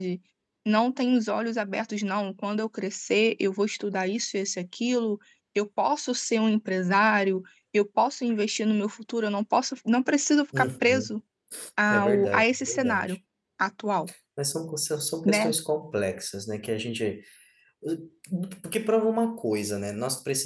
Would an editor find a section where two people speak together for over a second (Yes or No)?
Yes